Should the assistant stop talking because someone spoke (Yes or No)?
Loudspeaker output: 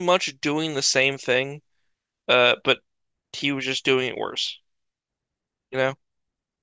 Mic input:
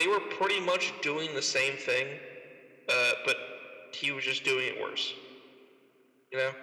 No